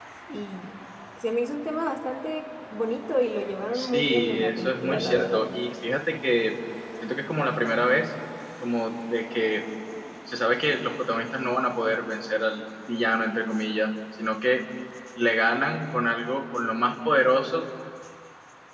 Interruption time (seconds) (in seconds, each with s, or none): 3.7 s